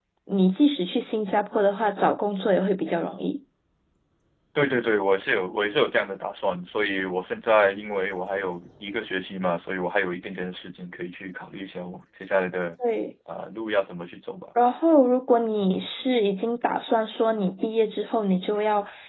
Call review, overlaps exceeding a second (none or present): none